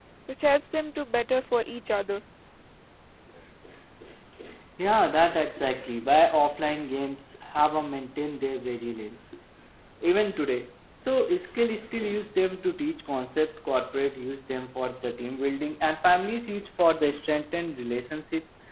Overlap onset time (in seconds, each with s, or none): none